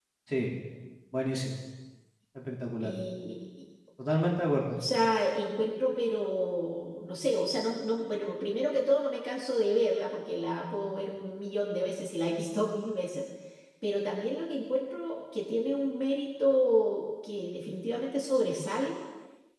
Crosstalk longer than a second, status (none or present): none